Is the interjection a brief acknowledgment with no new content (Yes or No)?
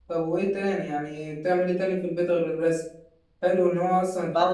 Yes